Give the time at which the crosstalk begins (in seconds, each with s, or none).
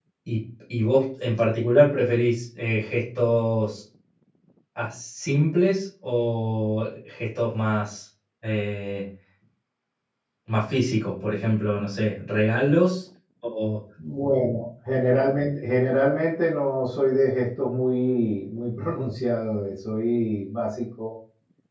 none